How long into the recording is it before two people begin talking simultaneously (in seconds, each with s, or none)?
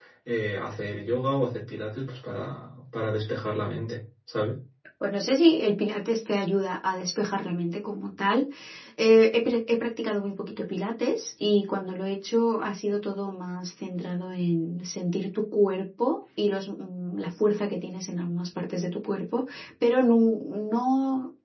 none